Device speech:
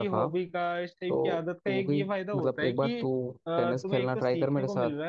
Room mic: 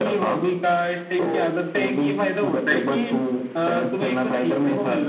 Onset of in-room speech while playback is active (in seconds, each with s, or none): none